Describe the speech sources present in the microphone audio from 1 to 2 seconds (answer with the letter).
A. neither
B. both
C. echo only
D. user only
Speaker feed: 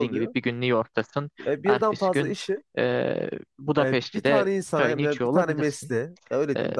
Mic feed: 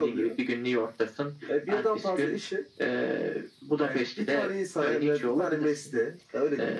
C